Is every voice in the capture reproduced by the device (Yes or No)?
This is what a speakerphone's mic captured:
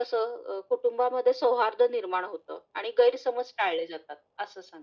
Yes